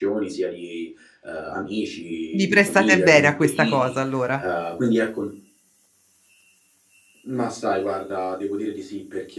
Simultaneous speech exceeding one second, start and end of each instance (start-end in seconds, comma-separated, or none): 2.3-4.0